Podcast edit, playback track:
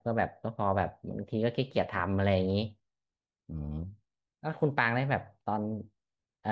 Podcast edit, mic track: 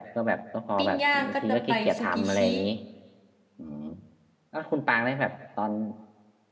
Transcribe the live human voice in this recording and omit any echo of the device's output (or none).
ปิ้งย่างก็จะไปซูกิชิ